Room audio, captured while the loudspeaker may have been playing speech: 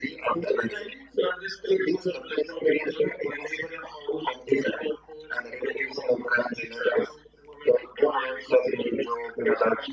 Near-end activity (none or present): none